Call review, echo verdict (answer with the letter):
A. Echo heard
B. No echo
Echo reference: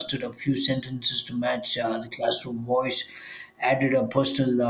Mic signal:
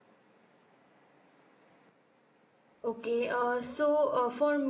B